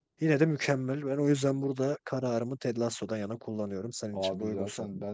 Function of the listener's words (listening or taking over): taking over